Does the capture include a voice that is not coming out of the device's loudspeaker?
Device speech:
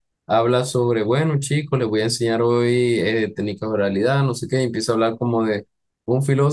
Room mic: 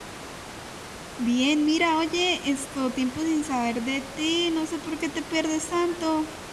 Yes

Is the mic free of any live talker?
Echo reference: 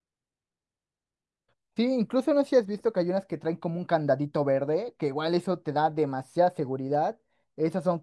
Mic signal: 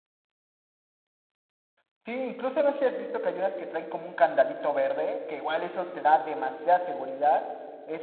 Yes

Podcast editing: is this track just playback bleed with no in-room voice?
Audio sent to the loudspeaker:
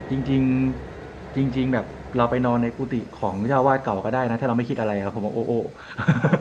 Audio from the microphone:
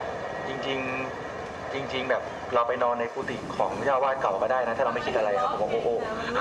No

